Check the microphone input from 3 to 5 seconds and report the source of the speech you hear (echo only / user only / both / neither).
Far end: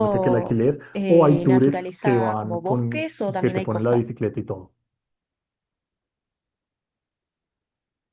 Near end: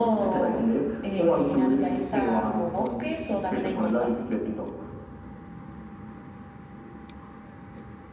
echo only